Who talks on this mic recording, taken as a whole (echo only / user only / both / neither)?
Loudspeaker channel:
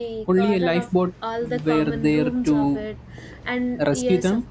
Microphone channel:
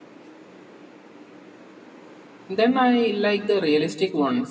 user only